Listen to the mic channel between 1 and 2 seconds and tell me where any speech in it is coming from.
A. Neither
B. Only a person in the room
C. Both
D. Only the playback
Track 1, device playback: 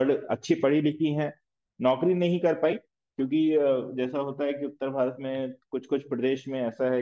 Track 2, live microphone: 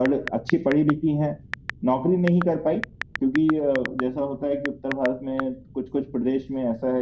D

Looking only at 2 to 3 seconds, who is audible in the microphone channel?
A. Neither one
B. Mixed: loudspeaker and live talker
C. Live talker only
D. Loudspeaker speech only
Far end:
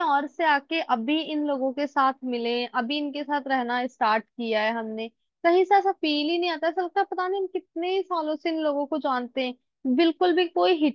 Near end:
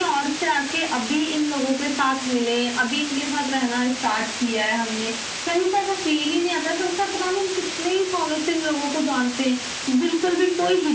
D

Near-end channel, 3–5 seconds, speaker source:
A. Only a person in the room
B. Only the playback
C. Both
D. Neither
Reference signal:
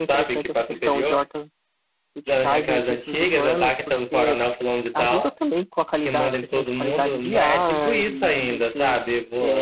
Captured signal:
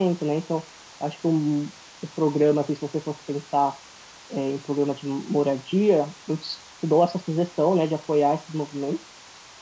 A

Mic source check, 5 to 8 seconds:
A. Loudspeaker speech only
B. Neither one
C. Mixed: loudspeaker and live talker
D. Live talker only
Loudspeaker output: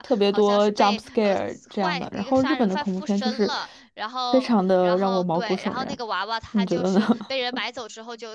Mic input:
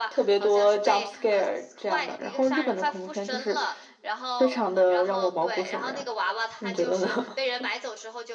A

